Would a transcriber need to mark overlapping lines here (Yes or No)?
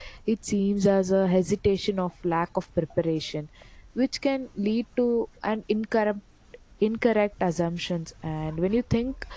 No